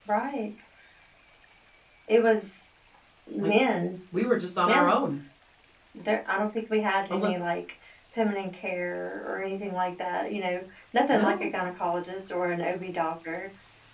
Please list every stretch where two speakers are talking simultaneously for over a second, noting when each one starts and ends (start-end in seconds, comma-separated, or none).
none